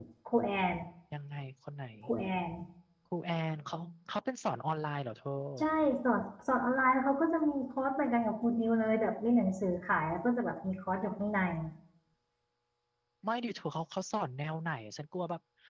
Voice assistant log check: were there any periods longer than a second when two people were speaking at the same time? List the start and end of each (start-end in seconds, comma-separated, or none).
none